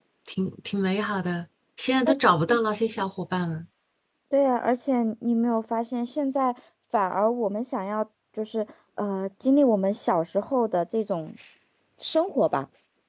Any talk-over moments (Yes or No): No